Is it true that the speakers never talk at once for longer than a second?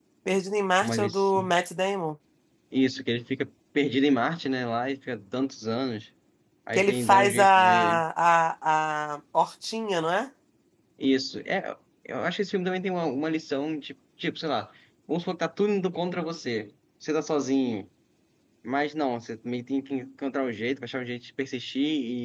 No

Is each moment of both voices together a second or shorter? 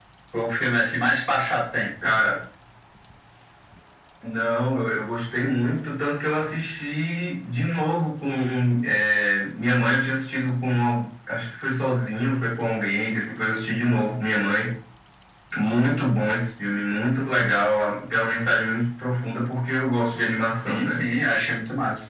Yes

